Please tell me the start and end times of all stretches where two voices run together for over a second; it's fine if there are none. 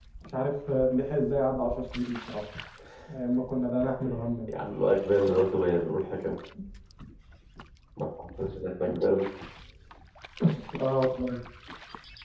none

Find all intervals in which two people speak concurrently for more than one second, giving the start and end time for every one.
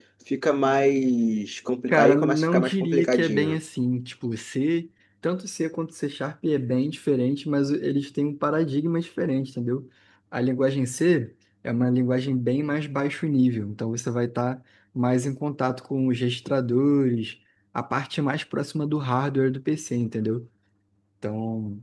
1.9-3.6

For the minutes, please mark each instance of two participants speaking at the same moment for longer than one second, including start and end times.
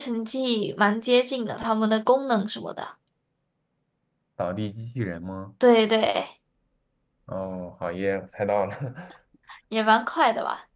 none

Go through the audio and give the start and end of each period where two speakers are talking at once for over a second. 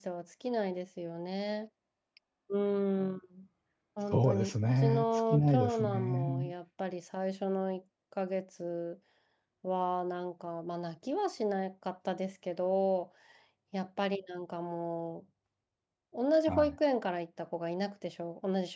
4.1-6.5

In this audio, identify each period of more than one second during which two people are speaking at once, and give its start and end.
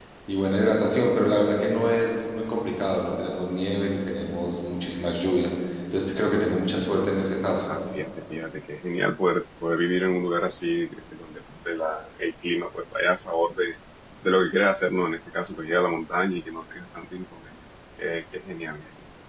none

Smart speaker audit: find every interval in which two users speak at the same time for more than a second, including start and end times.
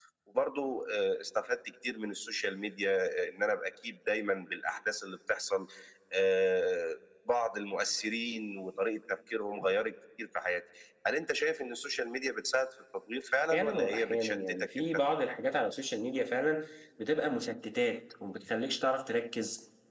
13.5-14.9

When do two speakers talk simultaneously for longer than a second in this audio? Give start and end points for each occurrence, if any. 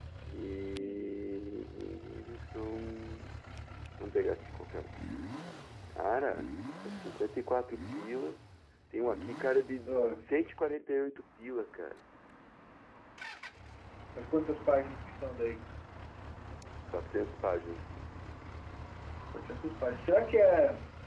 none

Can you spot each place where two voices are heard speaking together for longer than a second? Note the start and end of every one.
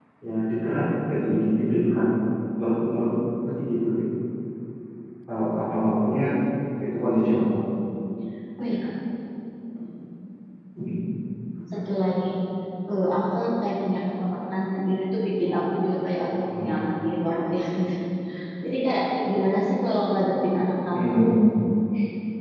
none

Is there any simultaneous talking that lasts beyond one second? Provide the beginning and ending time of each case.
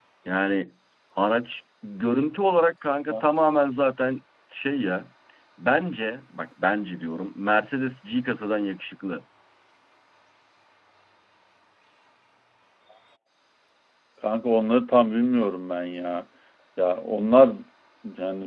none

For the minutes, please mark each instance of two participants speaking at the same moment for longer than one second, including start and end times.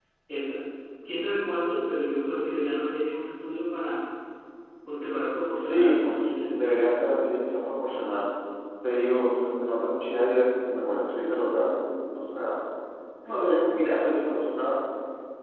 5.6-6.9

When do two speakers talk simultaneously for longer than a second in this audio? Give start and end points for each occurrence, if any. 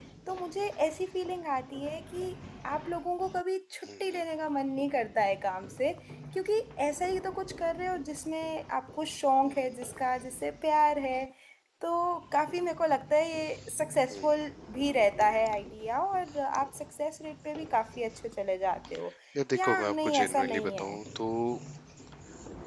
19.6-21.0

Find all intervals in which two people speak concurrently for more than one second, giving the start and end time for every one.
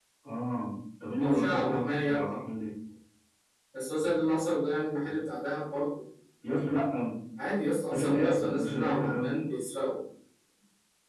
1.2-2.4, 7.9-9.3

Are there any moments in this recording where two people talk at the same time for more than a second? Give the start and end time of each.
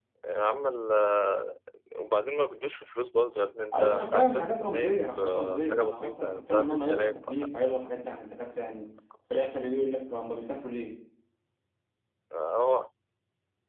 3.7-7.5

